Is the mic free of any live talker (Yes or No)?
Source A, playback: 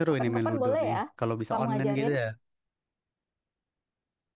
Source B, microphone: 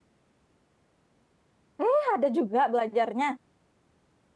No